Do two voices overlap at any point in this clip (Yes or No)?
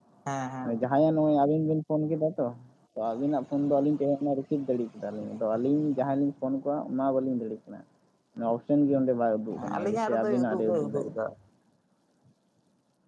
Yes